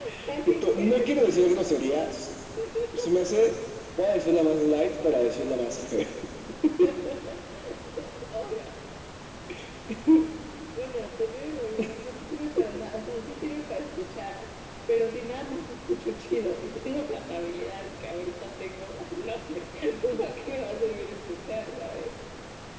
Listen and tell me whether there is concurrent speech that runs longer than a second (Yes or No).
Yes